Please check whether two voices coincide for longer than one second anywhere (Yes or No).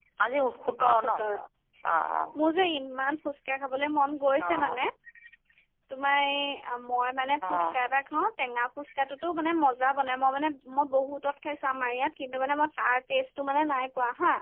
No